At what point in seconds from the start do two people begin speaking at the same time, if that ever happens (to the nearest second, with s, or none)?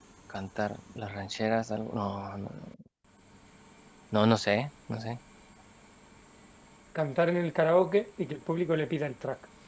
none